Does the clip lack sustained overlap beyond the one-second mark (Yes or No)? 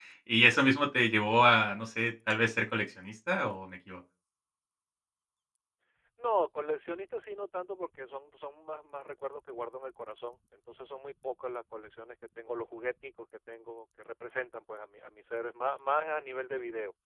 Yes